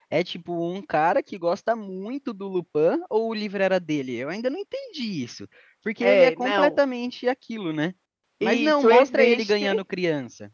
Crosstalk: present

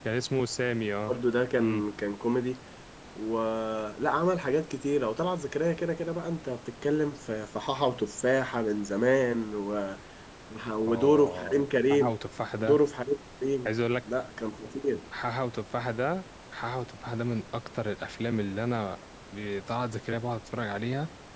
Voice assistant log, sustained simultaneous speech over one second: present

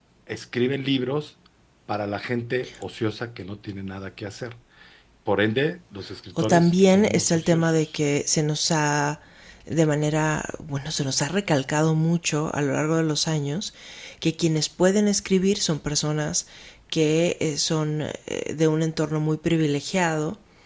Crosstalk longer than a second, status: present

